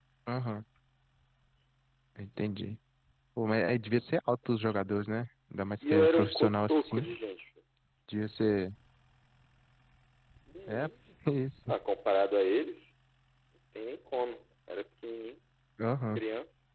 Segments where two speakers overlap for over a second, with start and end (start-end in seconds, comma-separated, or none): 5.8-7.0